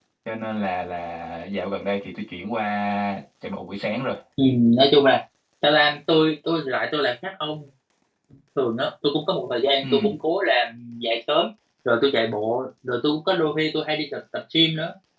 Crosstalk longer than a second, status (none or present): none